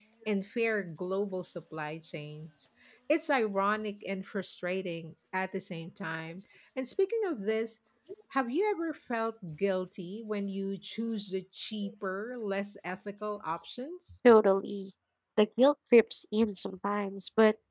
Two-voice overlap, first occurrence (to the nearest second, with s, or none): none